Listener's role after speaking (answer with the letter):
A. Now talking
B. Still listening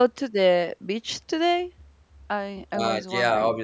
A